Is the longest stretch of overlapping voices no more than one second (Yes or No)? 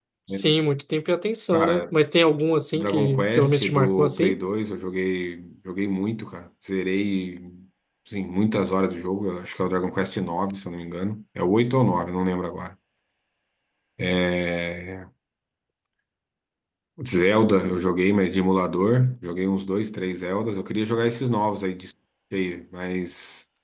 No